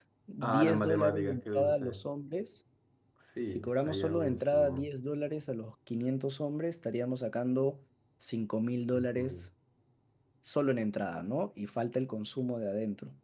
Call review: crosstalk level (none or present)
present